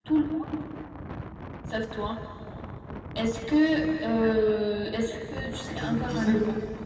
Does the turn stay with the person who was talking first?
No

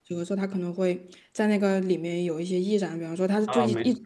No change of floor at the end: No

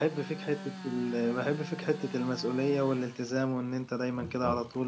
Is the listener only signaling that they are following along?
No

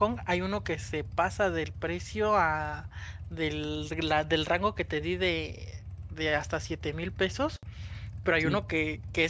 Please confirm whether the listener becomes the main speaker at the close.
No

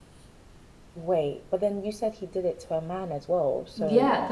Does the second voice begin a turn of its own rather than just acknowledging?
Yes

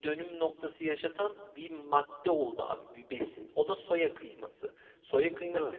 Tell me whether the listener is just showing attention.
Yes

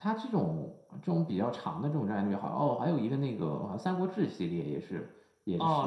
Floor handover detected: Yes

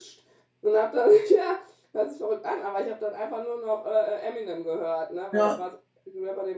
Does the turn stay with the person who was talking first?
Yes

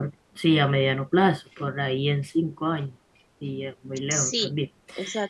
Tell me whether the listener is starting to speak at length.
Yes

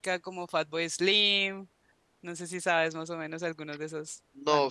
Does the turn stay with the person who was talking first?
No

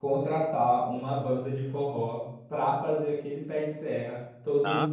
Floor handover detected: Yes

